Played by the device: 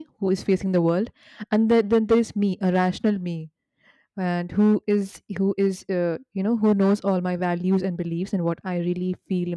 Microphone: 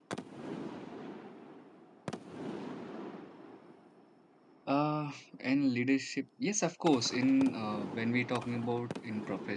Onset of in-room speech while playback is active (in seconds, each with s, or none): 4.7 s